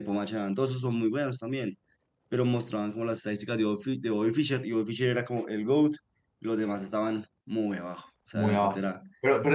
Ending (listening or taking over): taking over